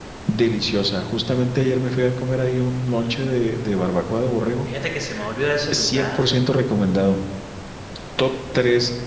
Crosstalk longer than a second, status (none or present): none